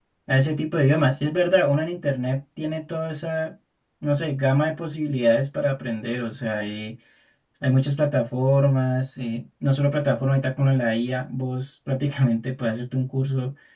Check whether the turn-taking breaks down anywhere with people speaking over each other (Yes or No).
No